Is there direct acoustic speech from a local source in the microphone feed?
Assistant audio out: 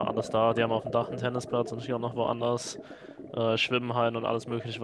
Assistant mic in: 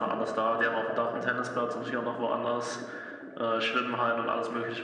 No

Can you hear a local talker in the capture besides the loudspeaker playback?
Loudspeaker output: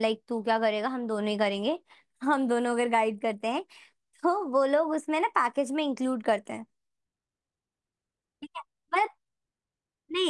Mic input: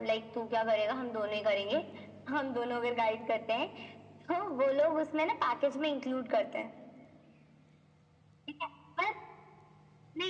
No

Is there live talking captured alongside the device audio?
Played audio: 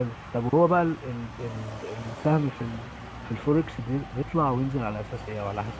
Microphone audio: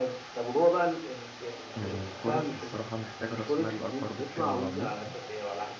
Yes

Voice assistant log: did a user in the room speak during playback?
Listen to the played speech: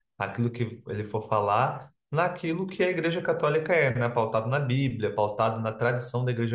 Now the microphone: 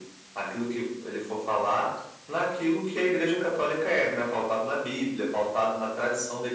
No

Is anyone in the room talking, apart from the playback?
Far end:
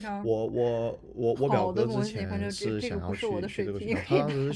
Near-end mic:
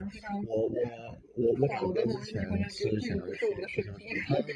No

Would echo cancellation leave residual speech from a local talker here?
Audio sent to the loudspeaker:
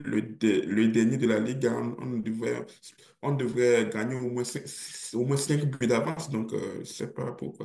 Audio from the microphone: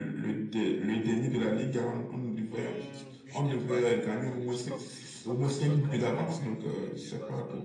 Yes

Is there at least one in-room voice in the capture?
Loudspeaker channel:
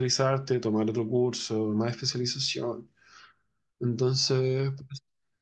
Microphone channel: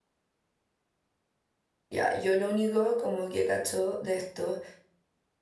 Yes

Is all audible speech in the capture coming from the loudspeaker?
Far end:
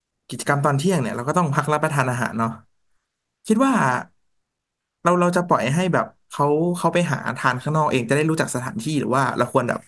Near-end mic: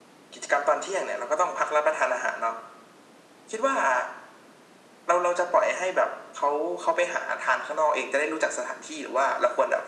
Yes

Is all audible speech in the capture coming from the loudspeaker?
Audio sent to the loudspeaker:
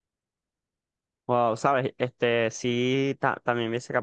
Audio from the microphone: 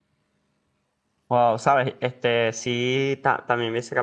Yes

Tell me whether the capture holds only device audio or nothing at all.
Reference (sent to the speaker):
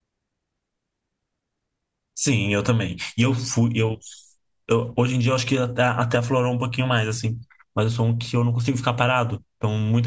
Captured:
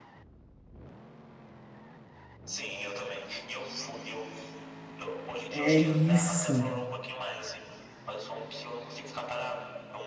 No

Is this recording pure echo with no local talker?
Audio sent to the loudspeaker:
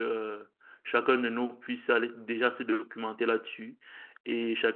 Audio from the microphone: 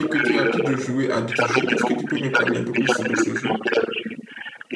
No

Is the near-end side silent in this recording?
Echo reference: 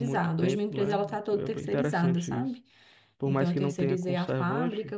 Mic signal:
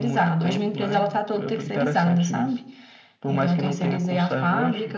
Yes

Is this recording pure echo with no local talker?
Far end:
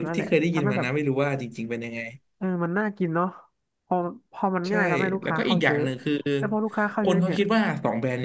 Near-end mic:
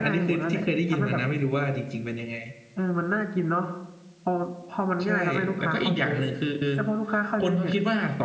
Yes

